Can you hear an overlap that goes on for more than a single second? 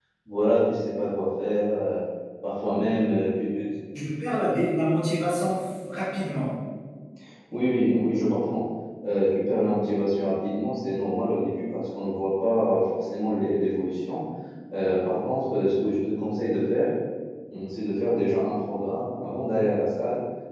No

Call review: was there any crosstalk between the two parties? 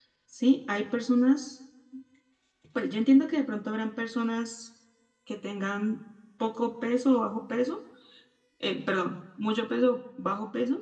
No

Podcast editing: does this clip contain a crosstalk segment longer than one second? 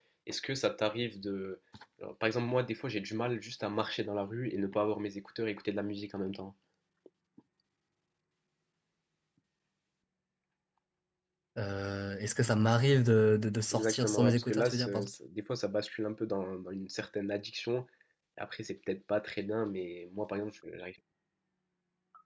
Yes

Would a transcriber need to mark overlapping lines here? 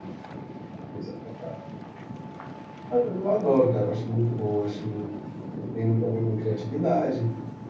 No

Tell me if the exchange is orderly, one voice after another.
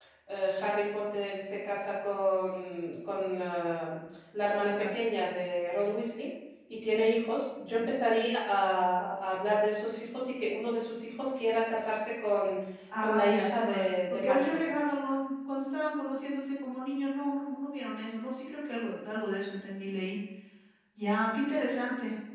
No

